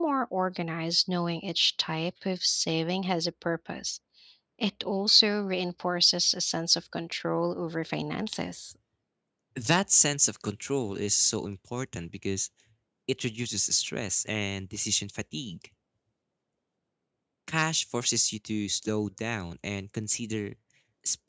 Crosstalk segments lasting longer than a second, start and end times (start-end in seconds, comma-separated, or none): none